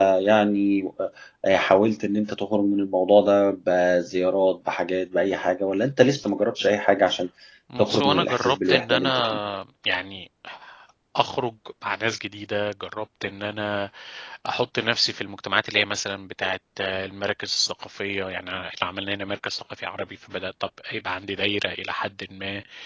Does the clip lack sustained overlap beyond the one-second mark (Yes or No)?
No